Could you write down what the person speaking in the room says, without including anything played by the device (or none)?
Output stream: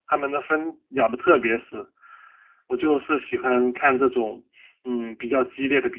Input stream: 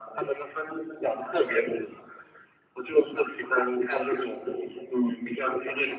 none